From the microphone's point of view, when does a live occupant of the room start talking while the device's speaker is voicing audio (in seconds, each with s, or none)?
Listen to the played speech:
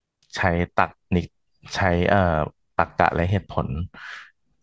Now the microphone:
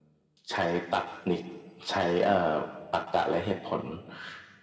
none